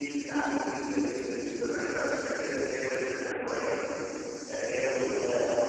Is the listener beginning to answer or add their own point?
Yes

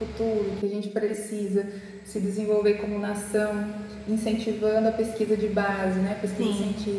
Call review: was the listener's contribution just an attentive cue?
Yes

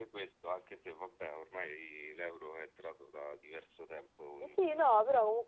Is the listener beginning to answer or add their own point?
Yes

